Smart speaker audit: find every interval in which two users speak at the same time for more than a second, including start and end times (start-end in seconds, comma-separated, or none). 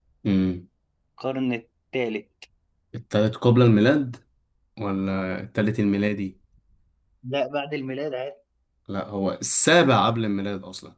none